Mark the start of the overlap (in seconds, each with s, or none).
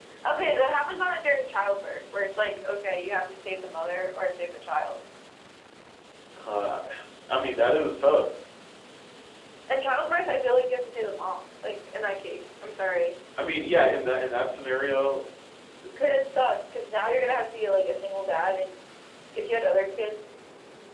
none